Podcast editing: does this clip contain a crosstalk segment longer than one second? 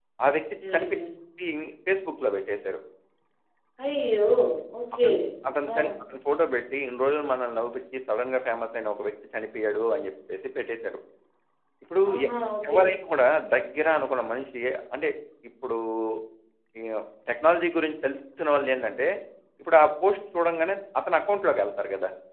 No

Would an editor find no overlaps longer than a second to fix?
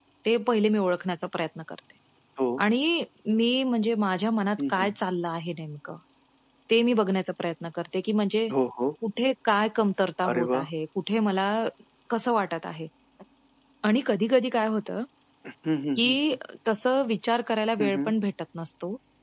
Yes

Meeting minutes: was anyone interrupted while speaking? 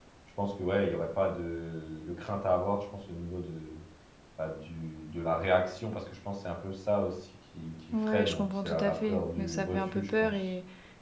Yes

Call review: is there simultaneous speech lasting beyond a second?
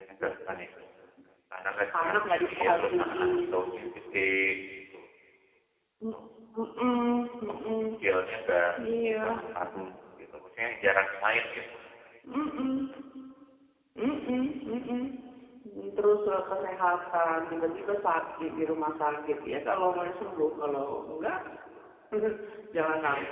Yes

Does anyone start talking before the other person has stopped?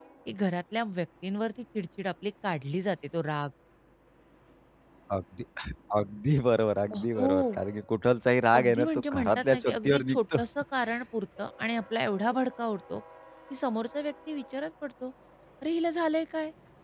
Yes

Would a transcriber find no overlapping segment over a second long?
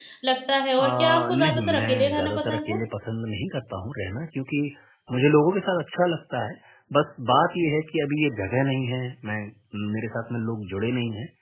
No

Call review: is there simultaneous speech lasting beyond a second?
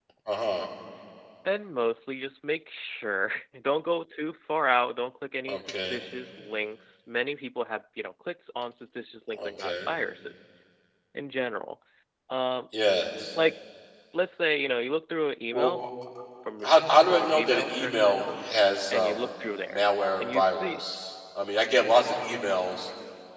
Yes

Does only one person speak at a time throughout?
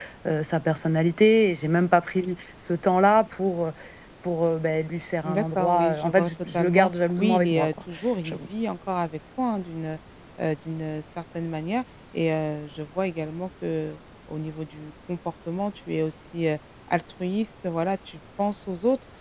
No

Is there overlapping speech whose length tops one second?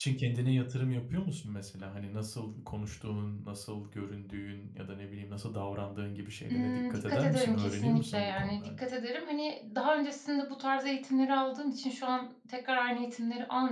Yes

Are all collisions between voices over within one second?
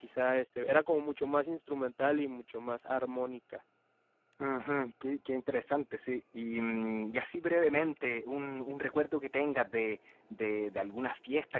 Yes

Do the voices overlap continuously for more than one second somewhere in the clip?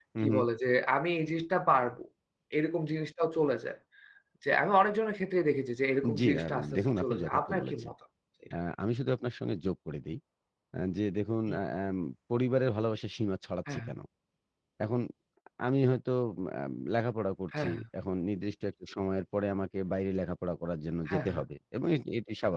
Yes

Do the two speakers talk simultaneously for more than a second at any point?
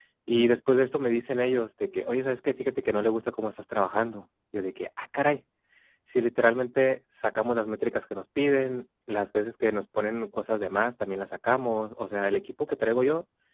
No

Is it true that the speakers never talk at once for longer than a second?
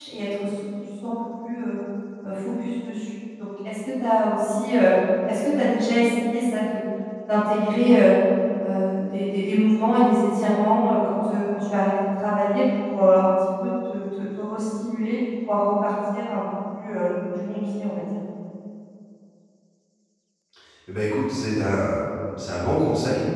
Yes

